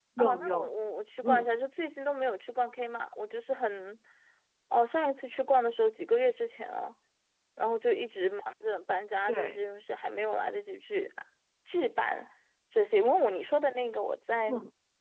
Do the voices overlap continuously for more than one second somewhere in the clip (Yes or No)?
No